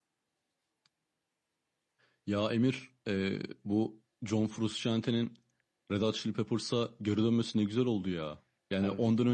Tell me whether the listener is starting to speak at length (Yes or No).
No